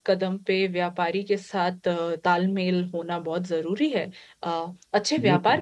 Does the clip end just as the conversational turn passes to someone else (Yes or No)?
No